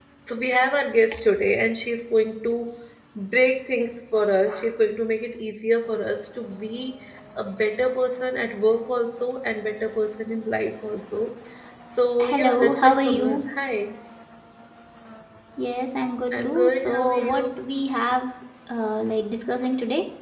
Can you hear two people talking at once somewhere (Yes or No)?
Yes